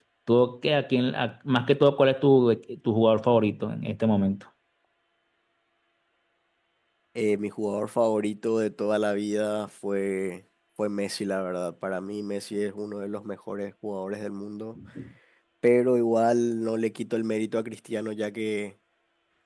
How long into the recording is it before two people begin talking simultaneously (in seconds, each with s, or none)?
none